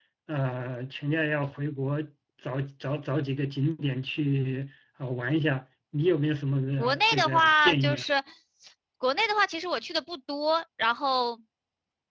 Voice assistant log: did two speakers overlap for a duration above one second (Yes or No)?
Yes